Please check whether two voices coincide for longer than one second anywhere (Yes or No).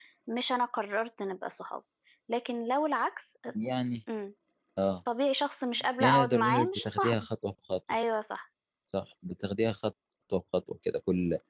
Yes